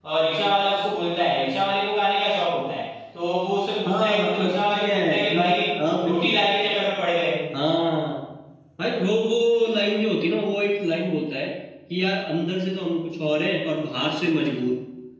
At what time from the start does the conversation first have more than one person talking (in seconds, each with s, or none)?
3.9 s